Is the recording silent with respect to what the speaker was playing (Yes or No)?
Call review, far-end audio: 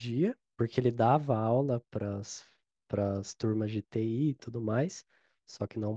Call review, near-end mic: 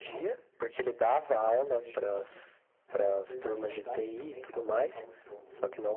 No